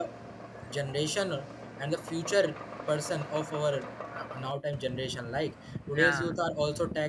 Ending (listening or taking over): listening